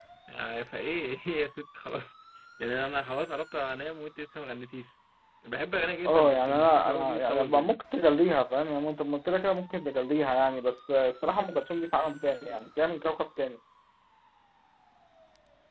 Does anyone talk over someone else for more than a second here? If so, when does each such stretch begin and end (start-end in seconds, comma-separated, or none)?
6.0-7.8